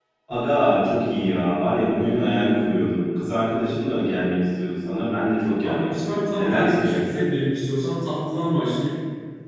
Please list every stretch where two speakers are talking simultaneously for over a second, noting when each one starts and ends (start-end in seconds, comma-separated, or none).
5.6-7.3